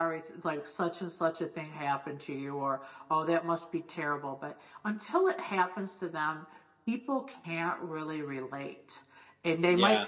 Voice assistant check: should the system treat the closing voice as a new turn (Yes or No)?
No